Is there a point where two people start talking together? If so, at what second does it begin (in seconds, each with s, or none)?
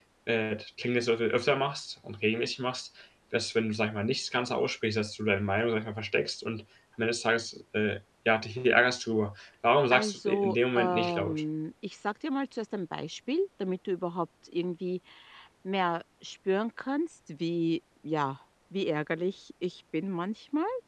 9.9 s